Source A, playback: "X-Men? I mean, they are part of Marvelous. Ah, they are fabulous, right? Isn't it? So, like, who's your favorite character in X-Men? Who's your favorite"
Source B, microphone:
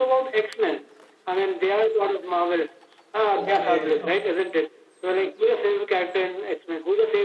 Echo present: Yes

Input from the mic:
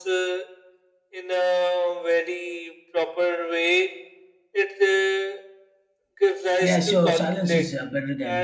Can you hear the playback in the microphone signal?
Yes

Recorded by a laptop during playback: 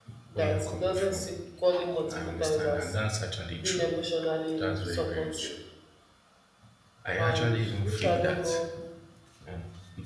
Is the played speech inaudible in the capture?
No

